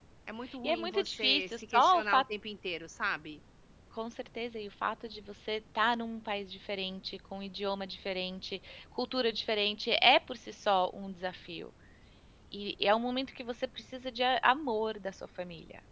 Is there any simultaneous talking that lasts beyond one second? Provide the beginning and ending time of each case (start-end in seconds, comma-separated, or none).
0.6-2.2